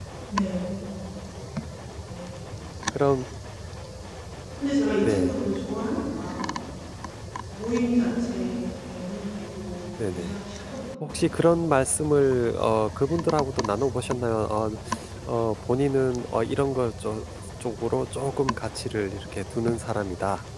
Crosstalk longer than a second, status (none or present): none